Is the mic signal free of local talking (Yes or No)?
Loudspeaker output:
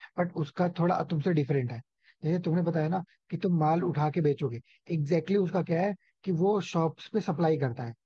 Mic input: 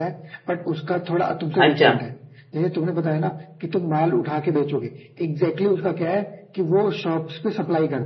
No